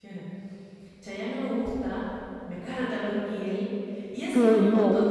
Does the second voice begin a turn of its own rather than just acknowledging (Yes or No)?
Yes